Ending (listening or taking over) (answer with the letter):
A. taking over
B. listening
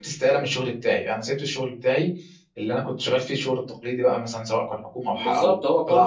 A